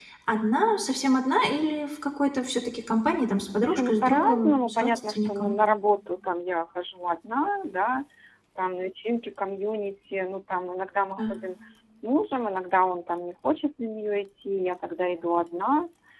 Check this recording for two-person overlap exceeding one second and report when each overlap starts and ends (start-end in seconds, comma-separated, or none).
3.6-5.5